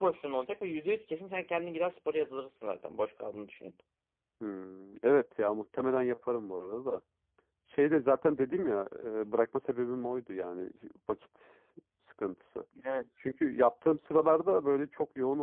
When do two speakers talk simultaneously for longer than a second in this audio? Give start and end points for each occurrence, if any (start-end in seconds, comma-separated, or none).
none